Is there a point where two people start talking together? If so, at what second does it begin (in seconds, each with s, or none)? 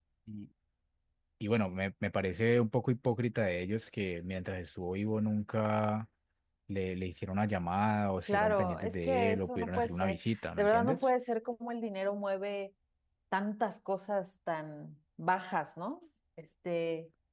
8.3 s